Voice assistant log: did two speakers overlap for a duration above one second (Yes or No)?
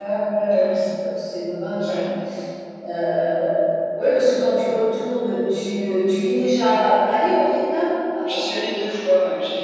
No